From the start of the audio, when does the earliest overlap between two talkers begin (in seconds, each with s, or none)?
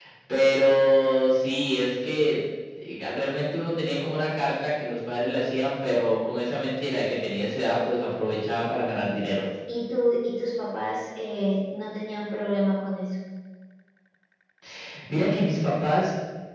none